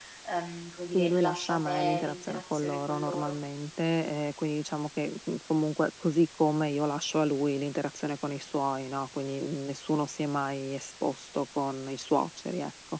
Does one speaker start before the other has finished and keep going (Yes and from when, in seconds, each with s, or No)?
Yes, from 0.9 s